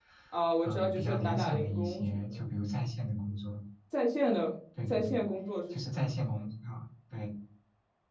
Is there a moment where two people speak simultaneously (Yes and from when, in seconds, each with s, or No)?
Yes, from 0.6 s